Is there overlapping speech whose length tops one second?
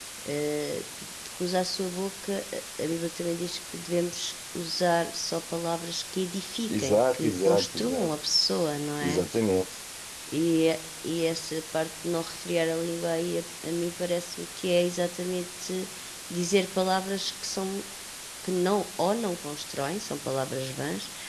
Yes, from 6.7 s

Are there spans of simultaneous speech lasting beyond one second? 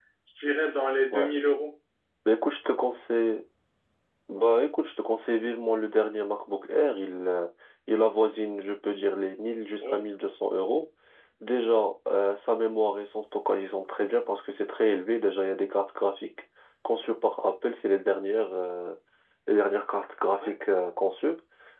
No

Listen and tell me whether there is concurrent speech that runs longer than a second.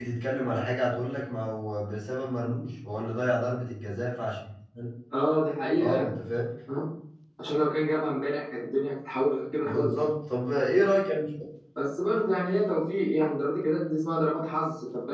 No

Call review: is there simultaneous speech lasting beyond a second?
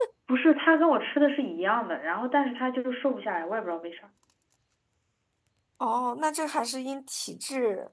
No

